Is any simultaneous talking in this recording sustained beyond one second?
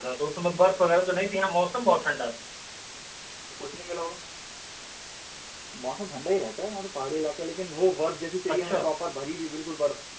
No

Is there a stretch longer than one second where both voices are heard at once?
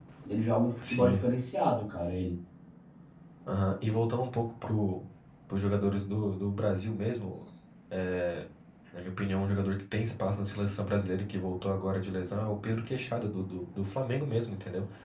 No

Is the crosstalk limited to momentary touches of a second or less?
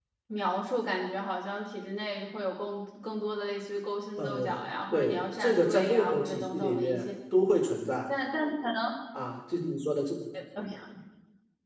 No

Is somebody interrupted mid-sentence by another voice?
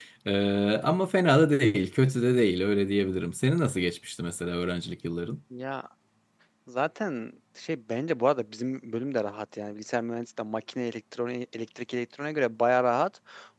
No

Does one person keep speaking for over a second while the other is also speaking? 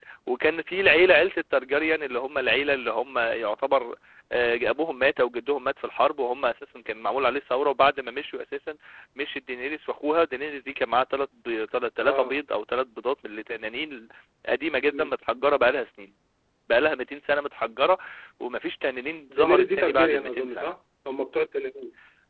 Yes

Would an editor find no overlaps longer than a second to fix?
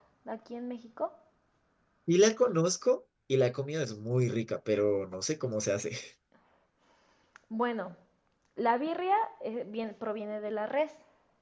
Yes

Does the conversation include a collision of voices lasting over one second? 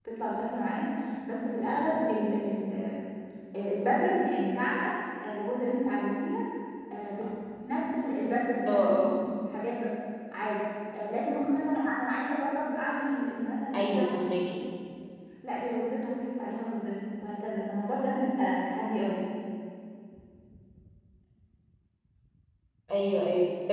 No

